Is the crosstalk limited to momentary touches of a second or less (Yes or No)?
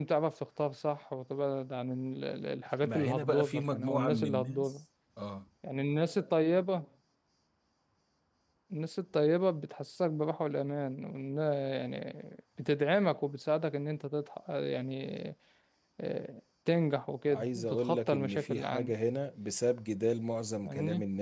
No